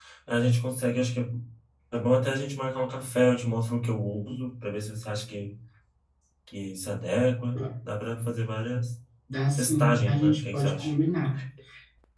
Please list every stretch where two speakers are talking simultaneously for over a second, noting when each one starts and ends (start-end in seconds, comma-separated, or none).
9.6-10.9